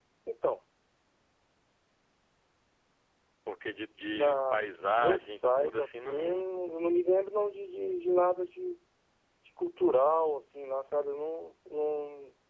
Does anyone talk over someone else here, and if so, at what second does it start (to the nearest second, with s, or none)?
4 s